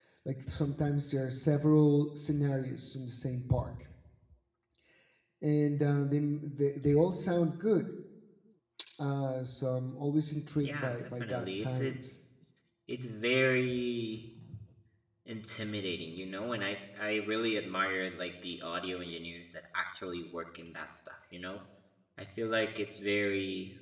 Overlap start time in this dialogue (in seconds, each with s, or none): 10.6 s